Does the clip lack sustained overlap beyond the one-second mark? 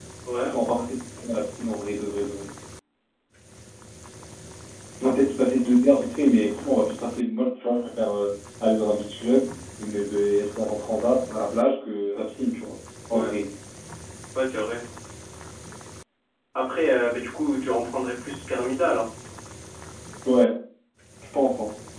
Yes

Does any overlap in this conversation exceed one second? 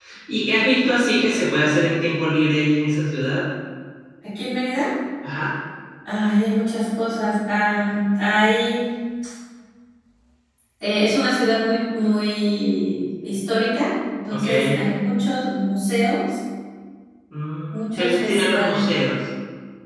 Yes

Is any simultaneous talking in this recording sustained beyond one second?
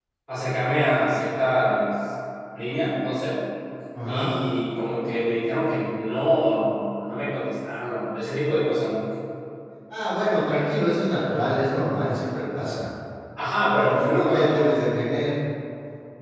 Yes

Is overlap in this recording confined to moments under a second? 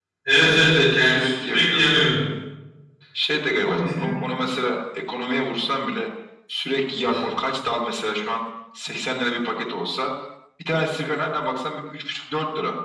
No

